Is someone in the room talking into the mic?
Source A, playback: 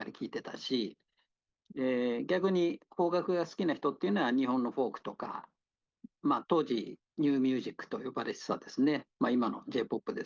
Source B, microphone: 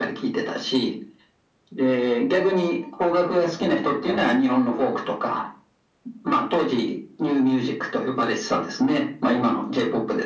Yes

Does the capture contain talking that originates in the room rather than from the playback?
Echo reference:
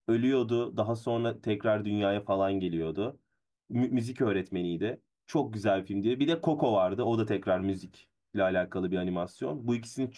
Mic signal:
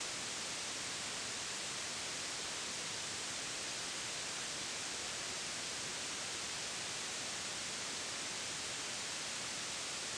No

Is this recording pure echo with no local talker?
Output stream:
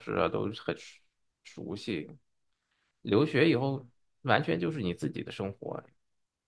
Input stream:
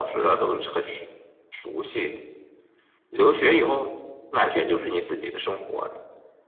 Yes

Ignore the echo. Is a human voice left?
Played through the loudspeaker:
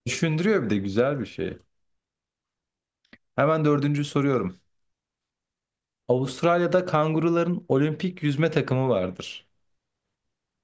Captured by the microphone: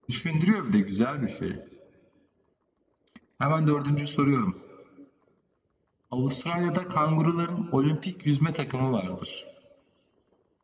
No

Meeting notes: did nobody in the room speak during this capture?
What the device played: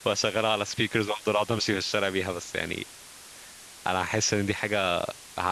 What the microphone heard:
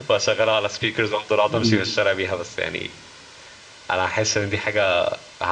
No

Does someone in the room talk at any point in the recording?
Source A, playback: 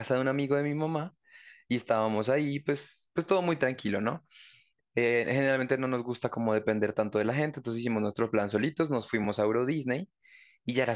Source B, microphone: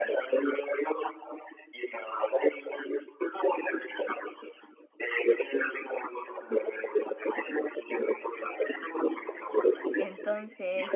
Yes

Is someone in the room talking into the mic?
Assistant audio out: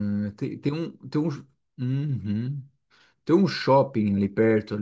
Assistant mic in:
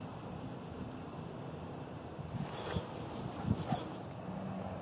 No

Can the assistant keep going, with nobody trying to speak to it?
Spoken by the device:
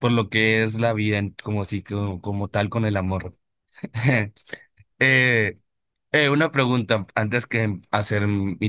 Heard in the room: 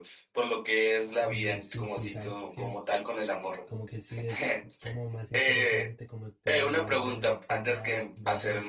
No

